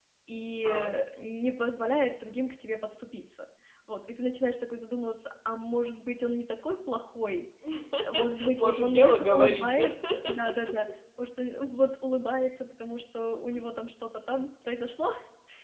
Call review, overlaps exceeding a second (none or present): present